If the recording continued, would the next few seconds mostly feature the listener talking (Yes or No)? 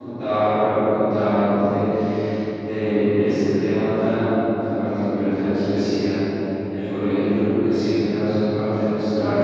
Yes